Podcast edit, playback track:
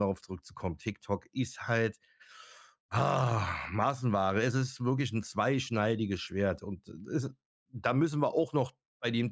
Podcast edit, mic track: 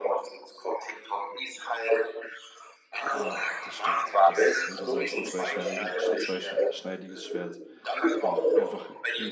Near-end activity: present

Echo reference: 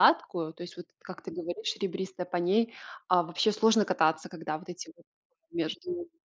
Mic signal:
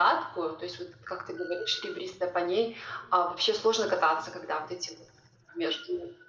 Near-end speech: none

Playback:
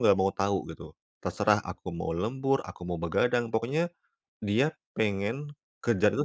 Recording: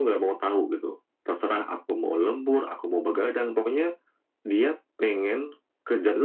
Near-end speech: none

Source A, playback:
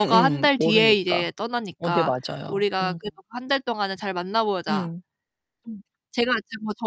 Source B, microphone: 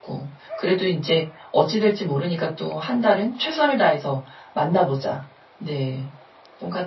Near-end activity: present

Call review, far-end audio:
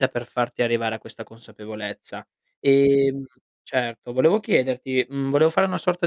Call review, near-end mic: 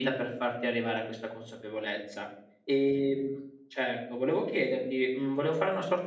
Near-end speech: none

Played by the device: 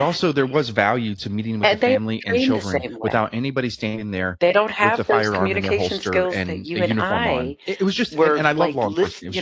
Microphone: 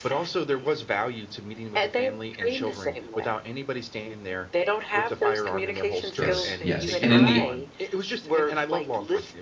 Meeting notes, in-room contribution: present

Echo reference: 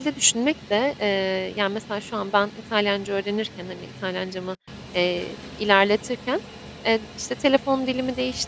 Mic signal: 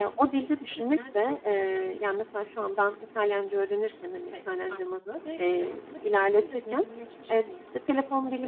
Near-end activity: present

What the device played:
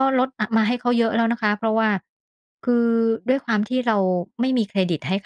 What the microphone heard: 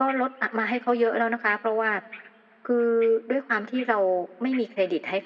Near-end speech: none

